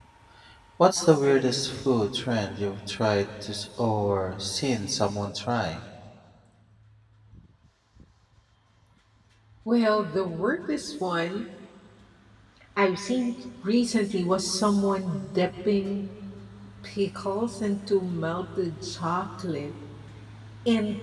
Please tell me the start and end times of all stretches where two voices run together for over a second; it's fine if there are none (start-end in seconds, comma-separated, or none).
none